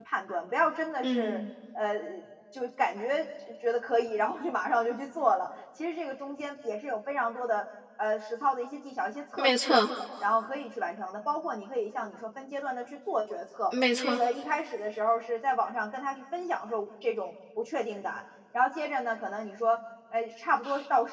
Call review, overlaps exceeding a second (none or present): none